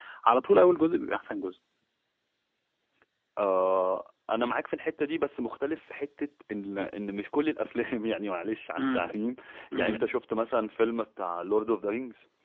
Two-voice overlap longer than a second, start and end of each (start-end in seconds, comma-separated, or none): none